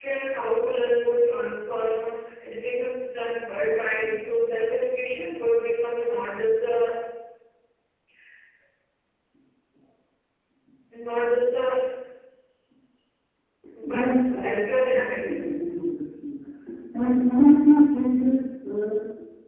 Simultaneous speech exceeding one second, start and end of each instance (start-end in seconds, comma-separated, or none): 13.9-15.3